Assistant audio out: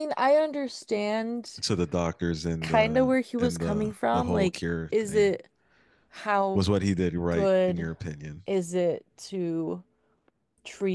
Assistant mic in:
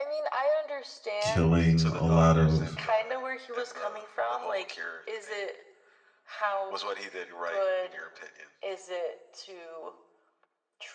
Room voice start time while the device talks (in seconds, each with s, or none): 1.2 s